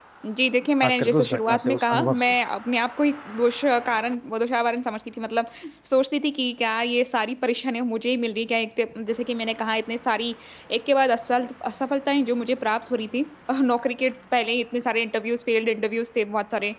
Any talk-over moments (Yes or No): Yes